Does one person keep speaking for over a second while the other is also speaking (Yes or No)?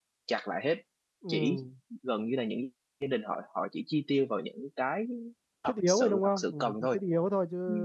Yes